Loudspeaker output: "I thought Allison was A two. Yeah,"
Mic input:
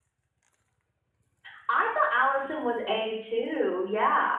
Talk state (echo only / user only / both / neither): echo only